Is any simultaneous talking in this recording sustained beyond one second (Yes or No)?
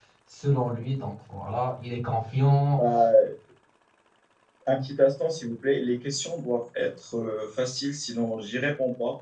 No